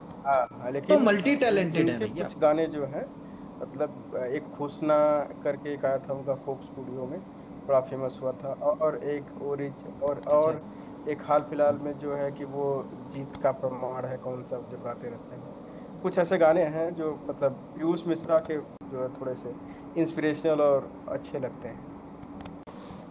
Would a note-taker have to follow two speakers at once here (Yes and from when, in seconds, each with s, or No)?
Yes, from 0.9 s